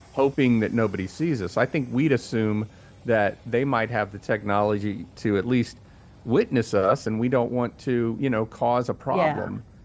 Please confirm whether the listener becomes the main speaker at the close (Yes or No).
No